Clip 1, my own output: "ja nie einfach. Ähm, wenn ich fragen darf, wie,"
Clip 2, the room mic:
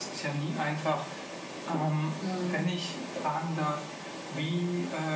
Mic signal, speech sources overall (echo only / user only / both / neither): both